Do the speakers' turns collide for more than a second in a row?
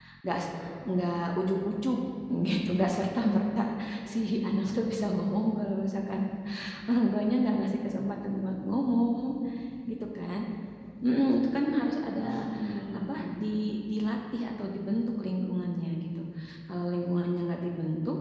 No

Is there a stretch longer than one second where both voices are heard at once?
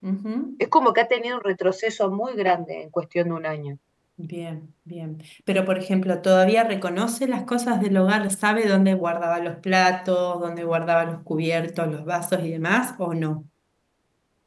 No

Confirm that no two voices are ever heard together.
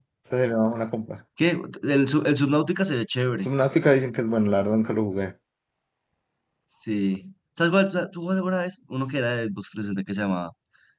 Yes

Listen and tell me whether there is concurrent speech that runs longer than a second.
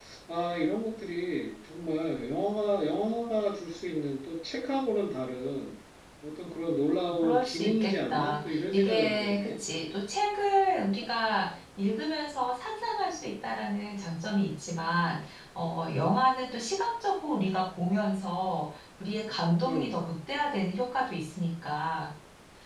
Yes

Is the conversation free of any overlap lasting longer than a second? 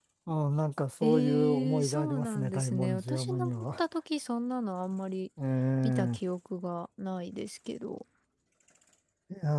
No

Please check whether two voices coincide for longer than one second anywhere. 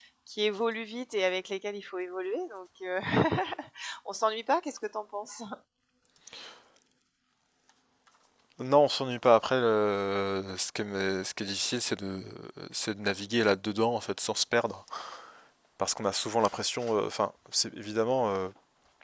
No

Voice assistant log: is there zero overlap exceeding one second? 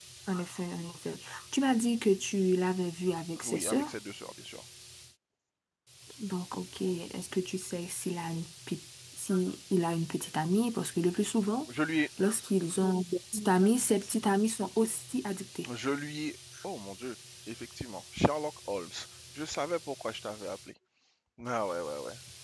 Yes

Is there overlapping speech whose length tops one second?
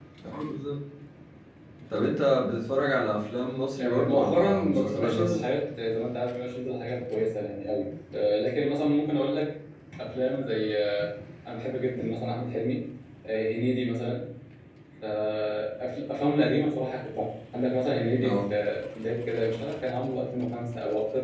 Yes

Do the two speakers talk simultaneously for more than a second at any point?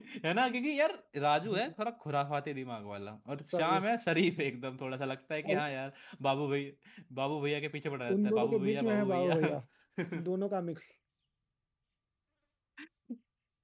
Yes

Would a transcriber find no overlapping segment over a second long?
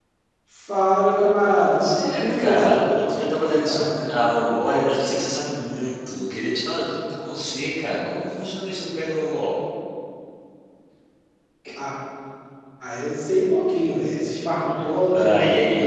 No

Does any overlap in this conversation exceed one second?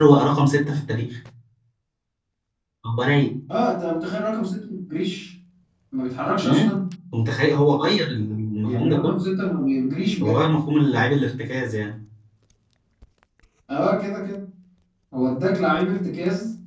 No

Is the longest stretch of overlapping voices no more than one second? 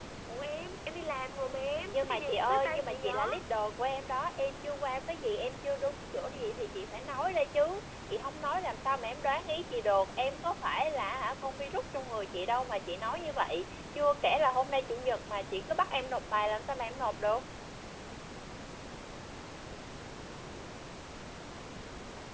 No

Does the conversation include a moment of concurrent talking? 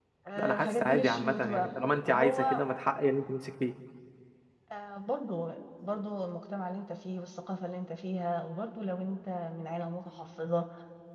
Yes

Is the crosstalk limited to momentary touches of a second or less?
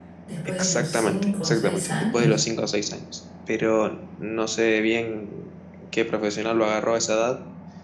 No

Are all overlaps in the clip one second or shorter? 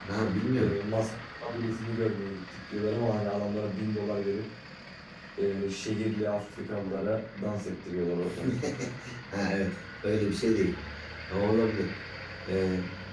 Yes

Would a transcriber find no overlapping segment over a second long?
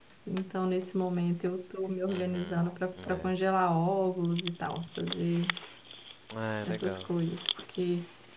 Yes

